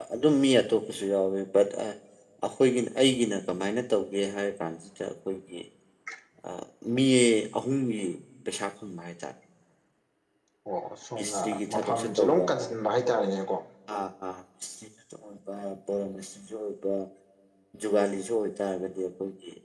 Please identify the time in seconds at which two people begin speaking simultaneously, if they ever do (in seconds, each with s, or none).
11.2 s